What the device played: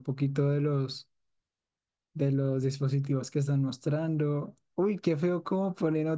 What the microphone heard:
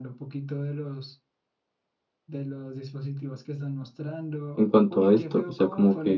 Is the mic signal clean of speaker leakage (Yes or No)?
No